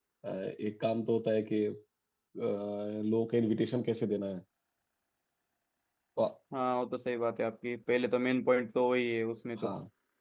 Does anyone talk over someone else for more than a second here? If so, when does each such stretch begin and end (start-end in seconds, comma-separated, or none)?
none